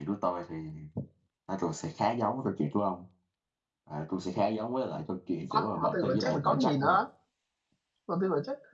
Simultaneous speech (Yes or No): Yes